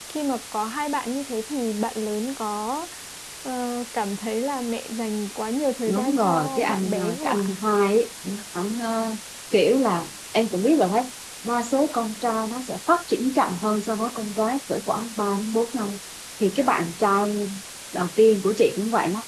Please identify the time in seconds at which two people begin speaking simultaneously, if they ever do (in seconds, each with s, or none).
5.9 s